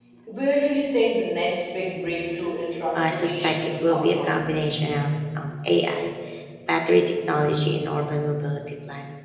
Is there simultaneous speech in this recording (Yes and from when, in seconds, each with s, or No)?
Yes, from 3.0 s